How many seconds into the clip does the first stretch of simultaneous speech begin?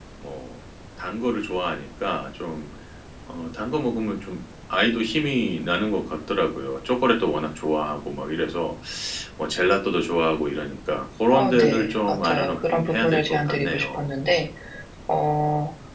11.3 s

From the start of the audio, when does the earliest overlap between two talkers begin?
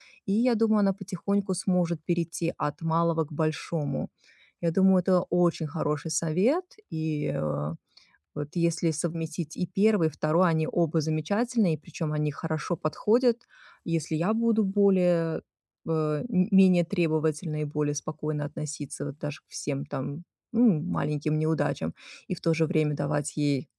none

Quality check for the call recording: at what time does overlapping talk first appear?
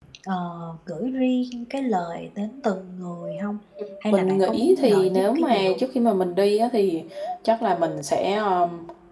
4.1 s

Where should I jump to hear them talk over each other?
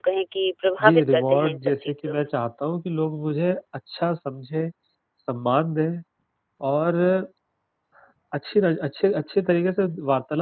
0.8 s

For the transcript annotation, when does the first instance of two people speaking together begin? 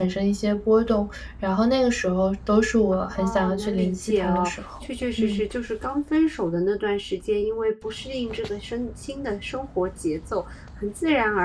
2.9 s

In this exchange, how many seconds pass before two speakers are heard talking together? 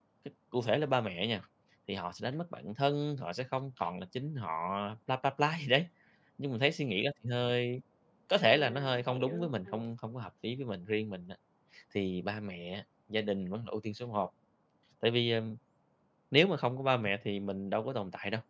8.3 s

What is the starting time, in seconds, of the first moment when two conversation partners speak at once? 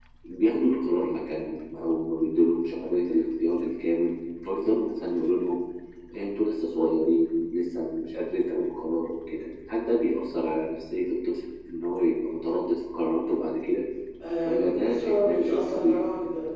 14.4 s

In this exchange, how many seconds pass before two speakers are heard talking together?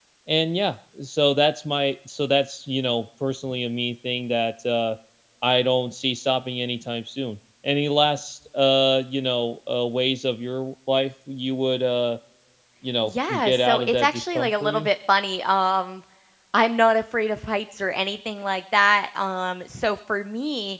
13.0 s

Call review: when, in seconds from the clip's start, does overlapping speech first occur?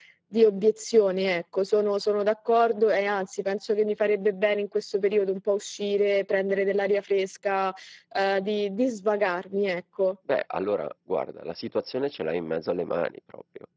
none

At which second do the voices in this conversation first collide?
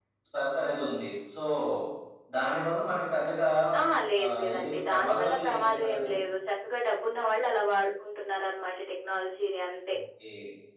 4.2 s

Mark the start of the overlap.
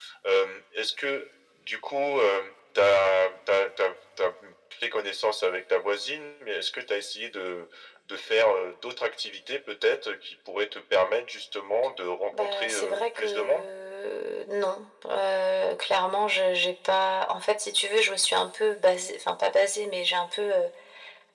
12.3 s

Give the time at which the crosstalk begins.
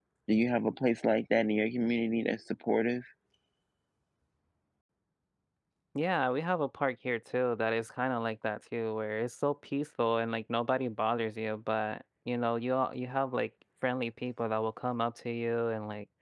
none

